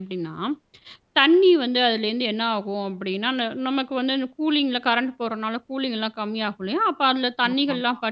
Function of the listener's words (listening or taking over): listening